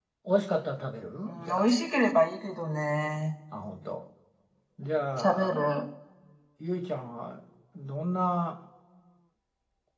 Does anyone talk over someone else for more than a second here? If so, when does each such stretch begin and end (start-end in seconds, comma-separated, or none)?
none